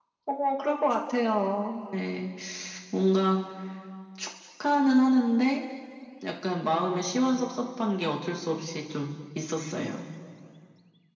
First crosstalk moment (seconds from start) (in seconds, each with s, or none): none